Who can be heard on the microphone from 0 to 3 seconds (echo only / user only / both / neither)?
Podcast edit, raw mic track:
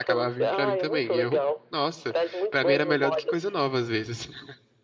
both